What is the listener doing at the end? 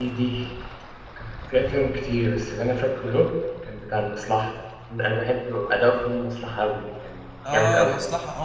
taking over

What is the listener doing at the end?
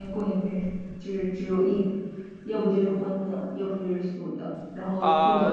taking over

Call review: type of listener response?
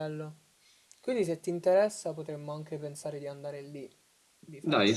taking over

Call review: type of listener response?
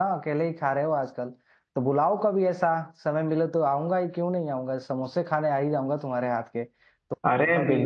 listening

